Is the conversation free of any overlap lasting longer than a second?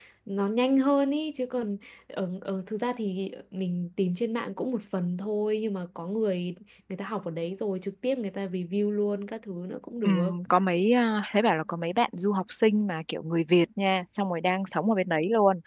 Yes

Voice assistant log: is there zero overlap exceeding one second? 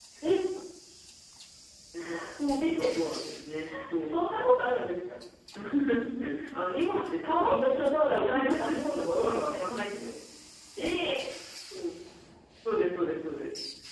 No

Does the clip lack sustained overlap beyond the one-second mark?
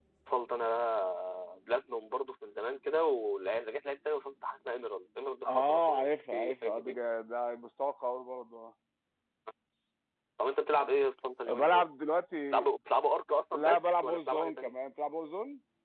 No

